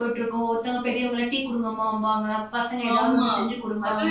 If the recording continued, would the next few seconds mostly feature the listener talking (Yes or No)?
Yes